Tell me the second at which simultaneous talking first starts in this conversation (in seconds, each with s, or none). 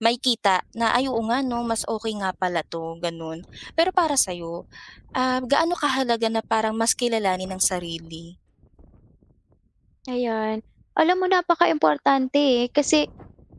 none